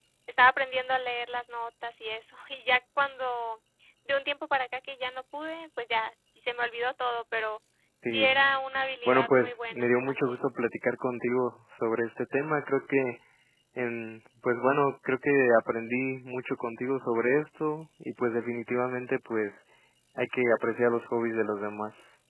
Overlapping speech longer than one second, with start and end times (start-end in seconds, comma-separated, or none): 9.1-10.4